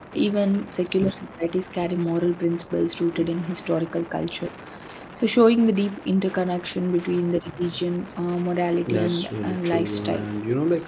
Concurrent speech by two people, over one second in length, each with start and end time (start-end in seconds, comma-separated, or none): 8.9-10.3